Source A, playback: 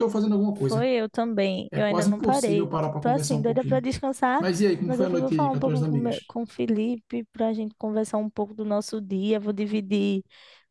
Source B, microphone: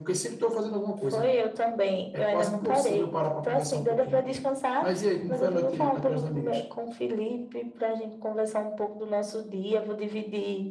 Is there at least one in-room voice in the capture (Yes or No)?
No